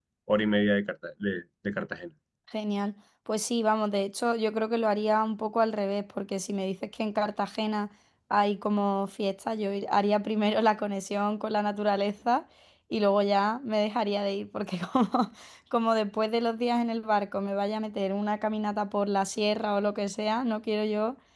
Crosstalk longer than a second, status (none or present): none